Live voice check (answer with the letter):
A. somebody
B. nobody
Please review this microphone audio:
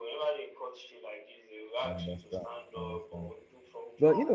A